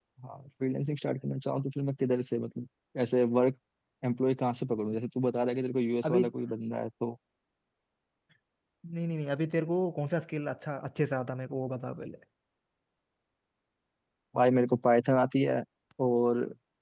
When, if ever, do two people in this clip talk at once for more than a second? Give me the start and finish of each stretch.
none

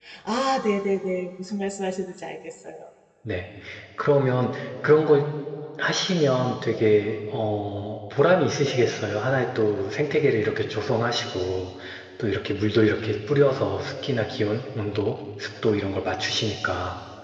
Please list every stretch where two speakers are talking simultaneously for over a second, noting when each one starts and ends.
none

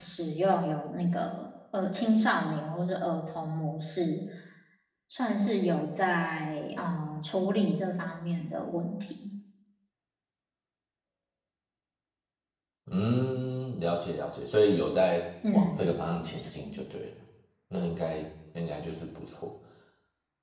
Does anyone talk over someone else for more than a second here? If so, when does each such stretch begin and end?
15.5-16.7

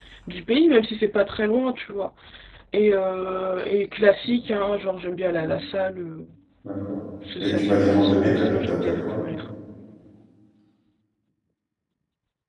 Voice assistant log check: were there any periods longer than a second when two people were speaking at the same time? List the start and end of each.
7.4-9.0

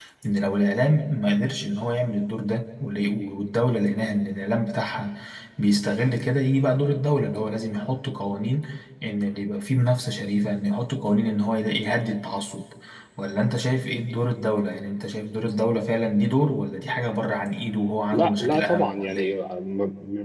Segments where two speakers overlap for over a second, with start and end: 18.1-19.3

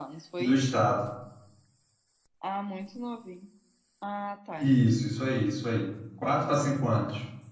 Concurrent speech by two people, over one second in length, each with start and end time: none

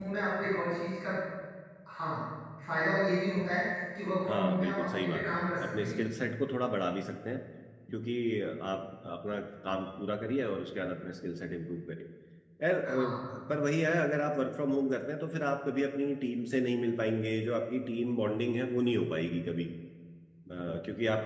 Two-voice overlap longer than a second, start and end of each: 4.3-6.0

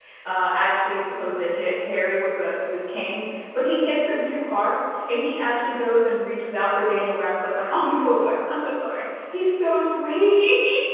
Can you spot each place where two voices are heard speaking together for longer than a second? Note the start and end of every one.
none

